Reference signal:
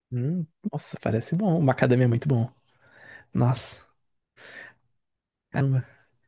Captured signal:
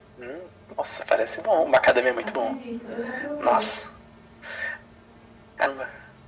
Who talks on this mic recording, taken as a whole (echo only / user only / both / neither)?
both